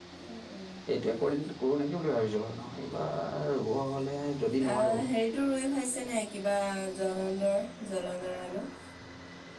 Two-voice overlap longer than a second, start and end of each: none

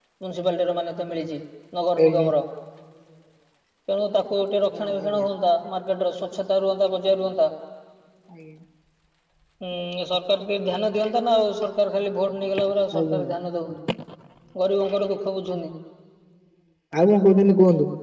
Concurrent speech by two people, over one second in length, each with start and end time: none

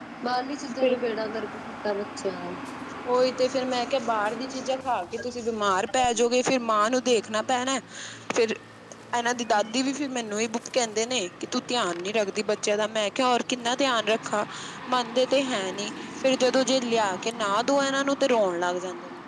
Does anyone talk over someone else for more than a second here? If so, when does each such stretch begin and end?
none

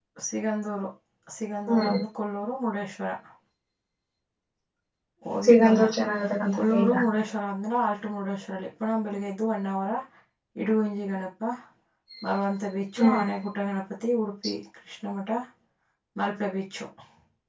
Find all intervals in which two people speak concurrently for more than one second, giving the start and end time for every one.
none

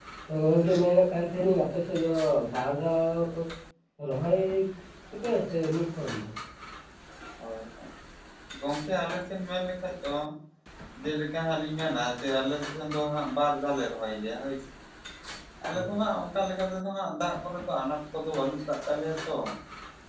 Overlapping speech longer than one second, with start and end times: none

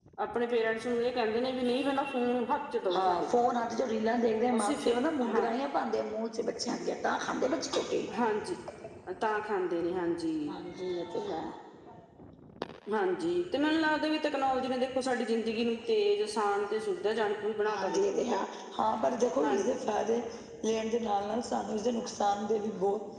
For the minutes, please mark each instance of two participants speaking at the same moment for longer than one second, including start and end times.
none

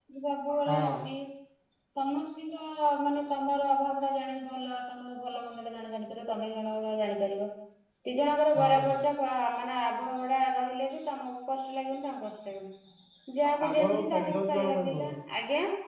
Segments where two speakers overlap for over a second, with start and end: 13.7-15.1

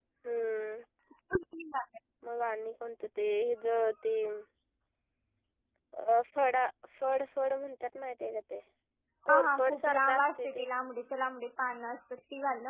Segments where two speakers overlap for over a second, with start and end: 9.3-10.7

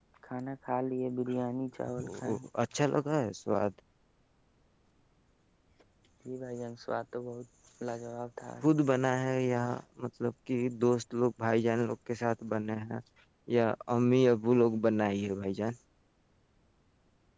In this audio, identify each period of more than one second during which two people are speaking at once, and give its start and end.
none

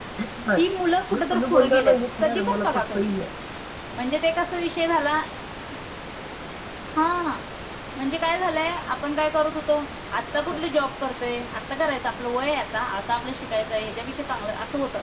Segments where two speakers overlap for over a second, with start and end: 1.1-3.2

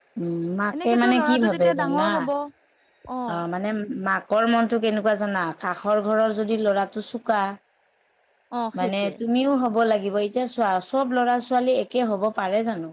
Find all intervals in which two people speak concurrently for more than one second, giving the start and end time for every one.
0.8-2.1

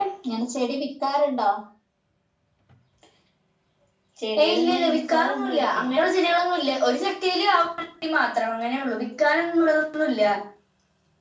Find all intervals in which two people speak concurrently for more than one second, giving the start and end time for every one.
4.4-5.8

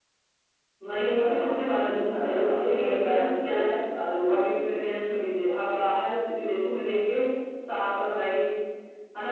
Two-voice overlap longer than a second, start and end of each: 1.8-3.6

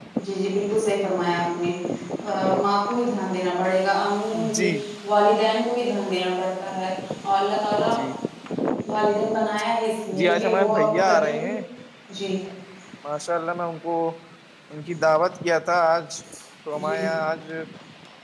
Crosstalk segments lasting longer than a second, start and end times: 10.2-11.5

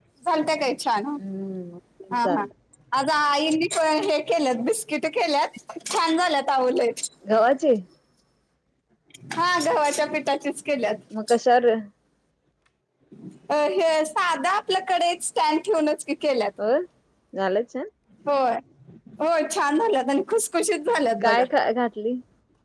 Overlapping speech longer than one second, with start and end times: none

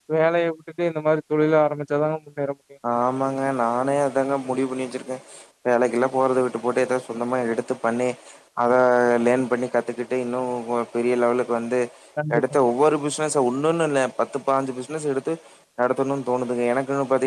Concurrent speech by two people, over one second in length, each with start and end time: none

